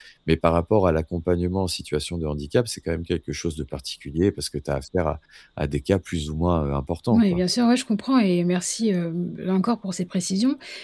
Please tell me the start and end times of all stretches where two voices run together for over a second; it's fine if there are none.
none

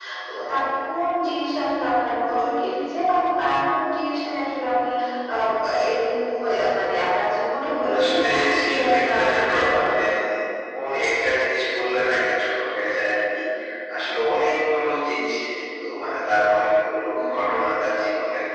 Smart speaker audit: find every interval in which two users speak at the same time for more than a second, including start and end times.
8.0-9.9

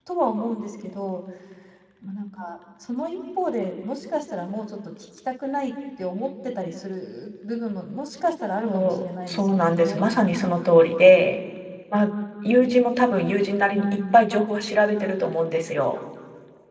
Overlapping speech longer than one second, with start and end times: 8.7-10.0

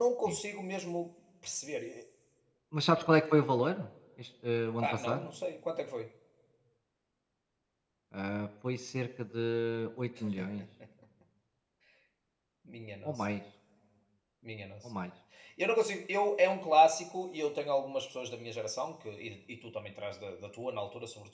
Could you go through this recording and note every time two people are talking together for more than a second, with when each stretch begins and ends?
none

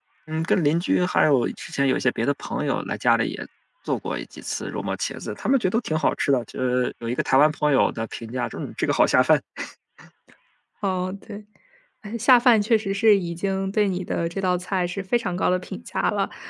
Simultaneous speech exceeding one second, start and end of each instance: none

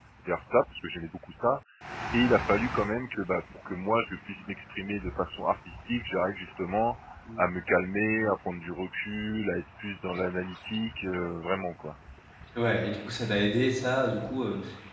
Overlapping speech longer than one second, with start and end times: none

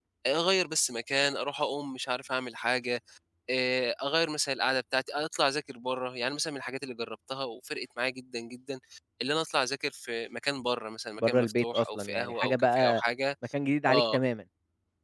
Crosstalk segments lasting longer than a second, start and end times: 11.2-13.0

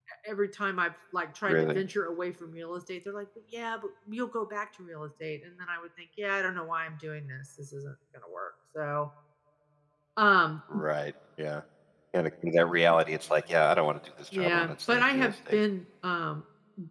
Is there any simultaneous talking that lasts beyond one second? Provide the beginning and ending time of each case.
14.3-15.6

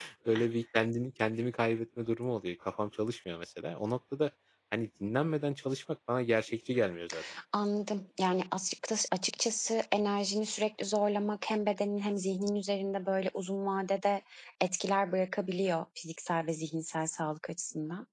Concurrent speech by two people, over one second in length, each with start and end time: none

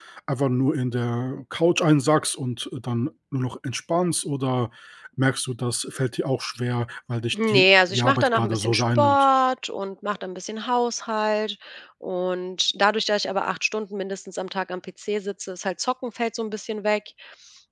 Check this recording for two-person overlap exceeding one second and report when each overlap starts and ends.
7.3-9.3

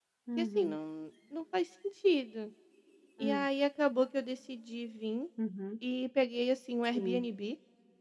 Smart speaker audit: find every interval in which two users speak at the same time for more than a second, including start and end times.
none

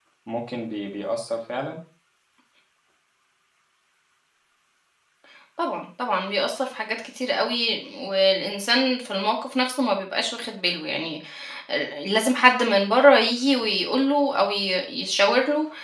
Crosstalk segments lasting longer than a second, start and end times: none

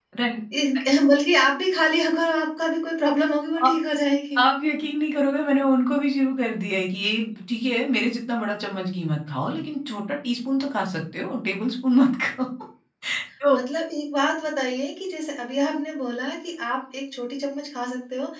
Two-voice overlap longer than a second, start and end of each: none

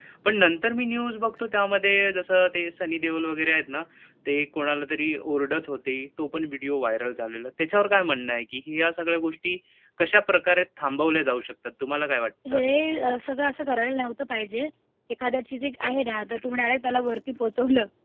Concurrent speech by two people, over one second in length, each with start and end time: none

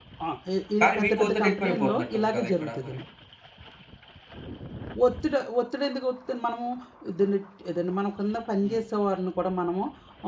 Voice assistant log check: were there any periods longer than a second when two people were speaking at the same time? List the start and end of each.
0.8-3.0

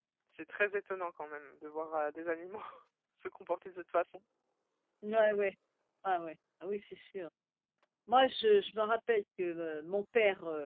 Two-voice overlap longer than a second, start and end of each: none

